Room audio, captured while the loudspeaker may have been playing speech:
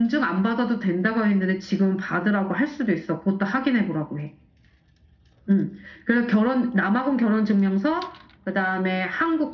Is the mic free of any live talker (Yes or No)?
Yes